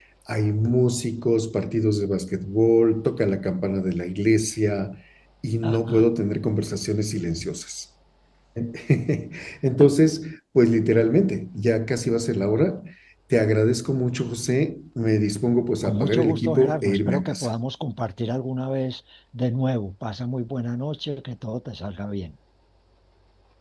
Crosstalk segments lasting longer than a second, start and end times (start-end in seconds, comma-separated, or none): 15.8-17.5